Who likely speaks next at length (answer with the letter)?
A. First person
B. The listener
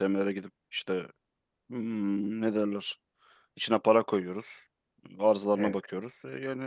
A